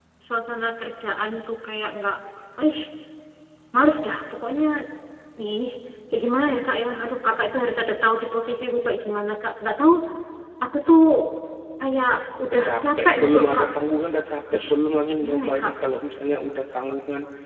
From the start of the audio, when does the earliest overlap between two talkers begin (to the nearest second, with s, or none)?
12 s